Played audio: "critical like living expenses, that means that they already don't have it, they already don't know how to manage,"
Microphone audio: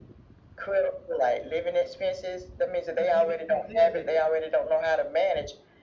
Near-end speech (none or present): present